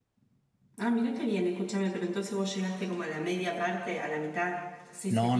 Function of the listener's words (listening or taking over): taking over